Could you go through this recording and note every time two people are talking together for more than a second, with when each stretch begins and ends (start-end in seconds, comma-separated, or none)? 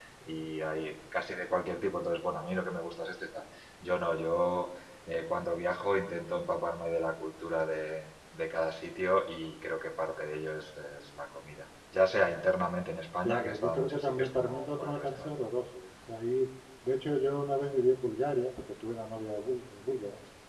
13.2-15.5